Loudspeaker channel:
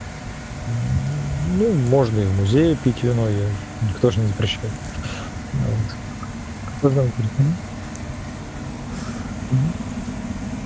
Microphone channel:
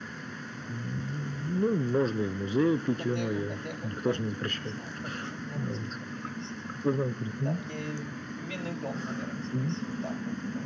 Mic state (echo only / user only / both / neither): both